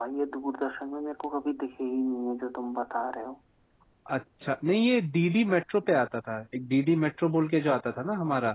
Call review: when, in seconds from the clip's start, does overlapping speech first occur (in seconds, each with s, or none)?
none